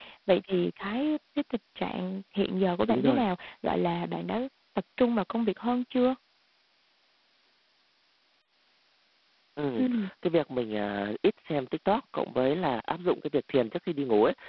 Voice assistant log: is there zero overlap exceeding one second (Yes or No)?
Yes